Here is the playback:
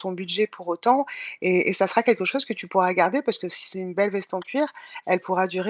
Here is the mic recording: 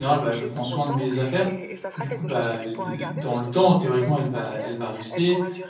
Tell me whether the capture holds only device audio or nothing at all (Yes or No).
No